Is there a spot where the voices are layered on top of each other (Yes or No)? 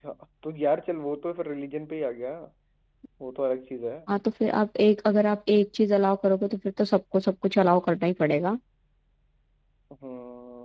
No